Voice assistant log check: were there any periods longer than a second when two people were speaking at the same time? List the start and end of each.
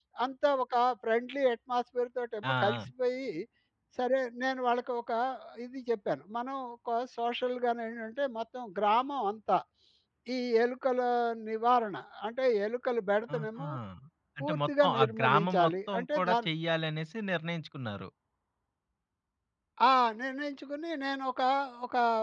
14.4-16.5

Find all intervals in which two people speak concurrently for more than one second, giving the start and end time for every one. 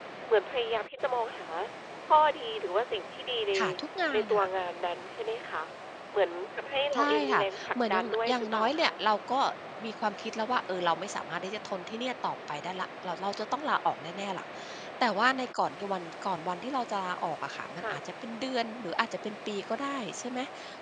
6.9-8.9

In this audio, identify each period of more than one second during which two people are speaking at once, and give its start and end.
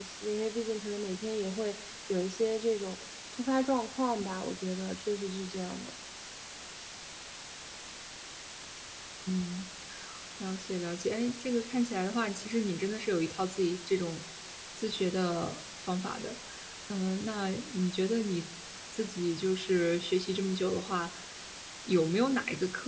none

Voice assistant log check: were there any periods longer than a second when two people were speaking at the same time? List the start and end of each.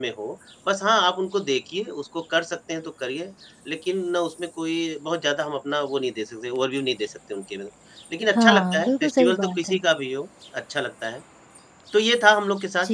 8.3-9.8

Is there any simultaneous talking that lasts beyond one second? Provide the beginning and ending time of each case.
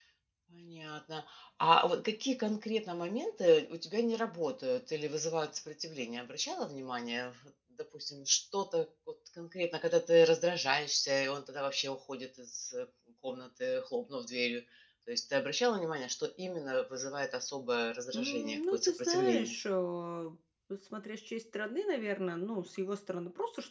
18.1-19.5

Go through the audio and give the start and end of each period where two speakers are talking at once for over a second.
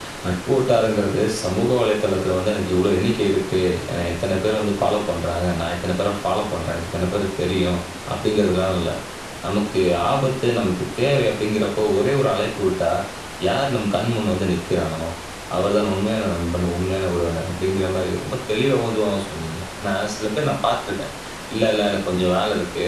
none

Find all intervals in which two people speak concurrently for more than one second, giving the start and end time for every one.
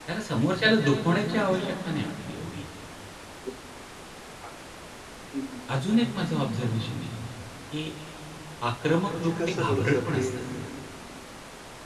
9.1-10.3

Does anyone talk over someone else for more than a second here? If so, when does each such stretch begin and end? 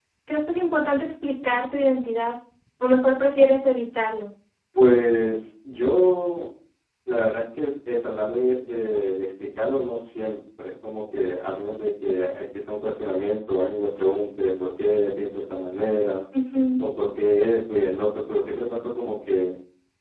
none

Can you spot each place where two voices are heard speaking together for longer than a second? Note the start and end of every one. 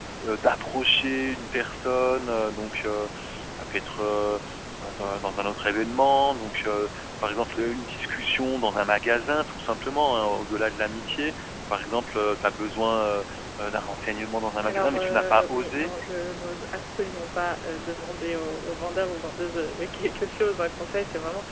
14.6-15.9

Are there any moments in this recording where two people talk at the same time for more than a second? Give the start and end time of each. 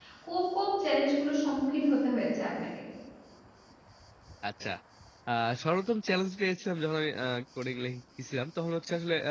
none

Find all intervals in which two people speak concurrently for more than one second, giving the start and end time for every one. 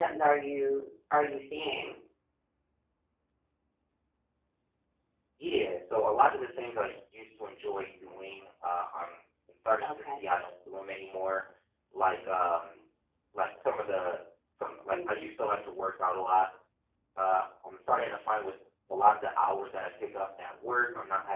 none

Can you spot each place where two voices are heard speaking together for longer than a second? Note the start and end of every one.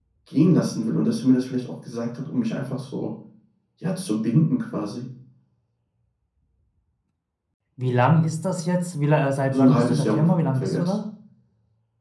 9.5-11.0

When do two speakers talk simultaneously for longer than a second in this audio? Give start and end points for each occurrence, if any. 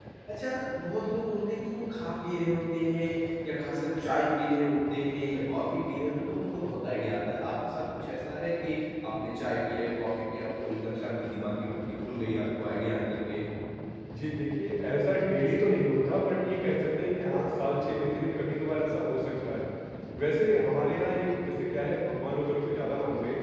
none

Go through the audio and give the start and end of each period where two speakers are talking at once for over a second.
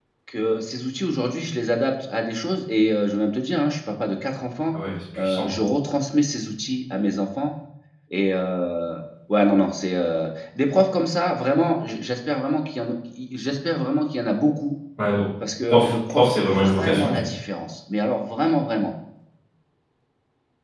15.6-17.2

